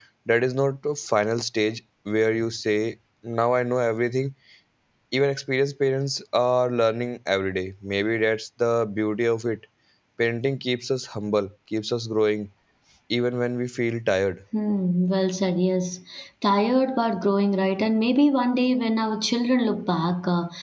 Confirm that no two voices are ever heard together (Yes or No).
Yes